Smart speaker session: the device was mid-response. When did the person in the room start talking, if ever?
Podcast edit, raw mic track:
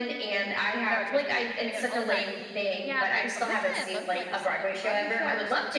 0.9 s

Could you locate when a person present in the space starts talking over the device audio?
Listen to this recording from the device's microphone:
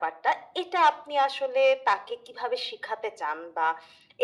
none

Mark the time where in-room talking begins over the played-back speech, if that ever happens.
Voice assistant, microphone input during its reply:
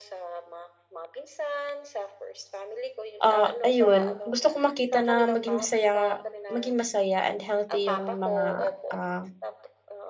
3.2 s

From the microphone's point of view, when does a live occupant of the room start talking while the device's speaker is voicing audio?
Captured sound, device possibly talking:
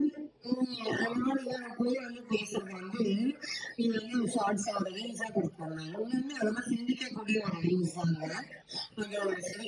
none

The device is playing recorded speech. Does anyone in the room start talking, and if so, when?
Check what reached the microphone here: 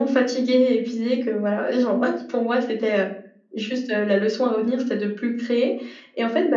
none

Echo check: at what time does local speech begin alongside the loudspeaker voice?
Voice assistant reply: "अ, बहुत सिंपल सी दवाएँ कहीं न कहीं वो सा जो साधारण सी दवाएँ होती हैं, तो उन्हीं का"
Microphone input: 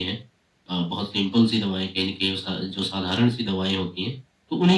none

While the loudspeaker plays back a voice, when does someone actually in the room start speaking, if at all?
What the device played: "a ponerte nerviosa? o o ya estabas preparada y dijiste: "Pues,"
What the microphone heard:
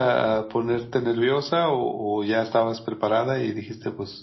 none

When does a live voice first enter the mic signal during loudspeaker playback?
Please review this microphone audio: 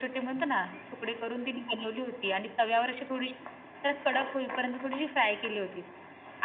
none

